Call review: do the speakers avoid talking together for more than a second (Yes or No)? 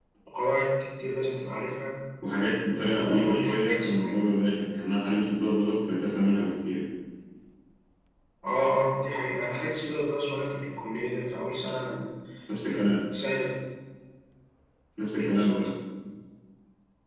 No